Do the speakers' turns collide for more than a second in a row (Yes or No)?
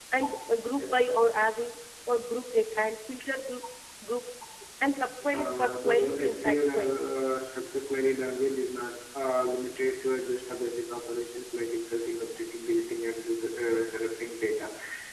Yes